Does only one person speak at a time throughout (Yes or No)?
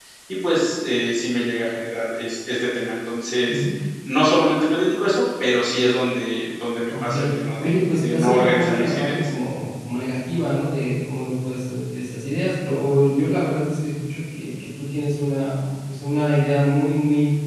No